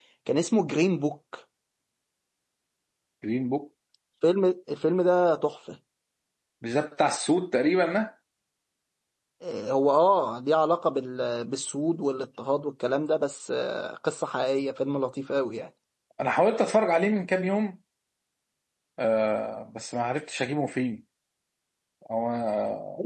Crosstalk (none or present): none